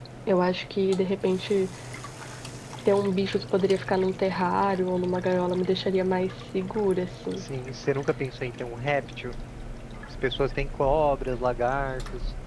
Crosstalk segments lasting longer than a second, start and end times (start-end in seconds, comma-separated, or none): none